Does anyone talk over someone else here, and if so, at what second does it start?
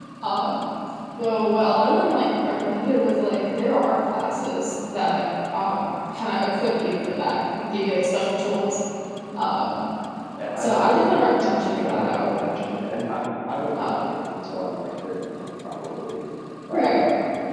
10.6 s

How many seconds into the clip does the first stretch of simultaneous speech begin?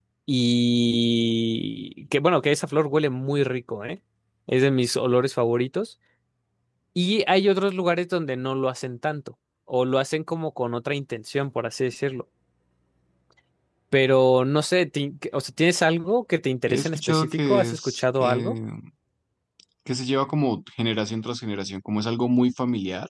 16.7 s

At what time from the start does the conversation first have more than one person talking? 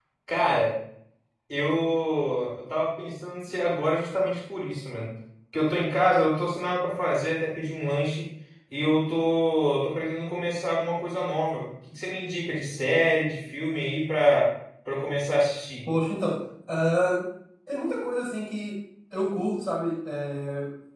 none

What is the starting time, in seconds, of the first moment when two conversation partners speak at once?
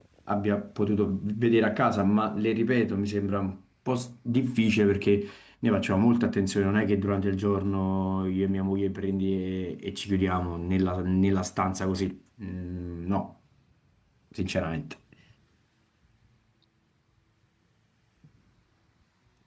none

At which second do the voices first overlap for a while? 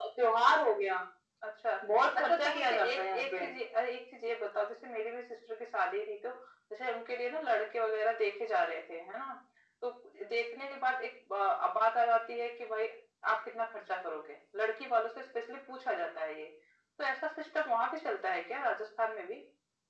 2.2 s

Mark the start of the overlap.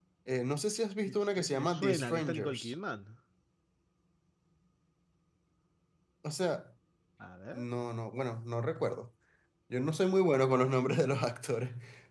1.1 s

